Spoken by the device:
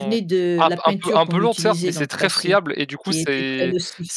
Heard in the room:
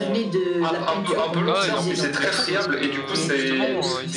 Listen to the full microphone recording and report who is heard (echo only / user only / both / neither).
both